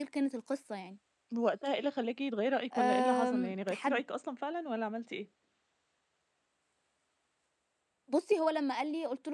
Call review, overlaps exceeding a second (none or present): present